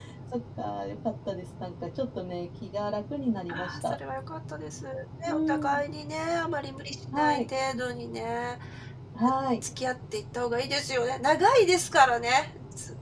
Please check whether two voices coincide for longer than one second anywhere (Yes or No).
No